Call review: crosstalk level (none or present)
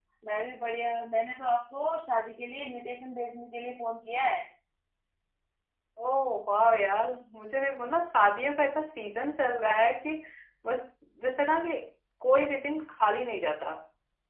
none